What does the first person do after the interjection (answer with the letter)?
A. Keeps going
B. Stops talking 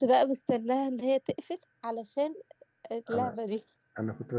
B